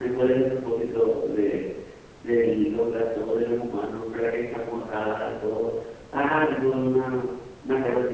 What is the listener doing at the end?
listening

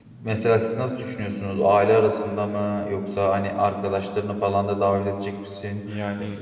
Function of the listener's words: listening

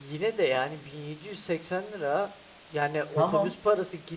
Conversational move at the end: listening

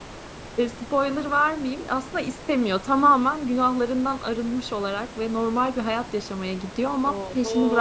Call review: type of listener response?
taking over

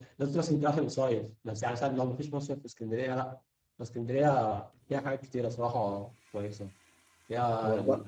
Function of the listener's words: listening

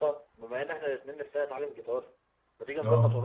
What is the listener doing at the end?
listening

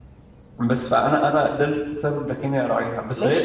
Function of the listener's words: taking over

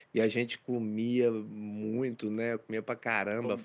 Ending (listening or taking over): listening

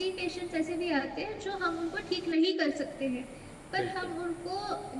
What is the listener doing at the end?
listening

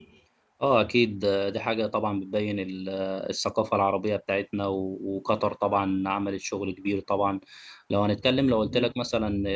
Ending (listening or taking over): listening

